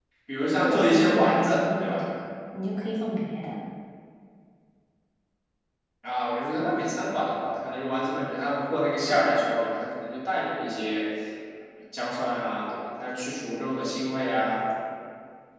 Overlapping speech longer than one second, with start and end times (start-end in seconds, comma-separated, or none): 0.6-2.0